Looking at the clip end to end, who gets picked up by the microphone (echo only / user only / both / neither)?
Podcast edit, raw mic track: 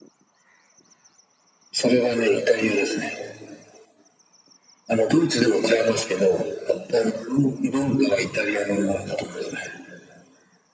echo only